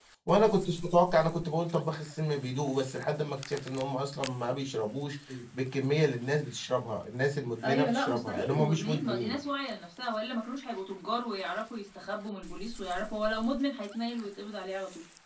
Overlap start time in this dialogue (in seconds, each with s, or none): 7.6 s